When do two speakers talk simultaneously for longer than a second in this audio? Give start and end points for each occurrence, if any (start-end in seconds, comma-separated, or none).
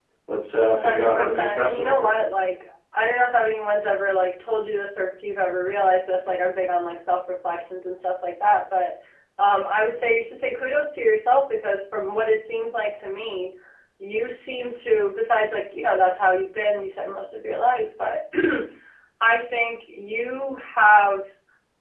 0.7-2.2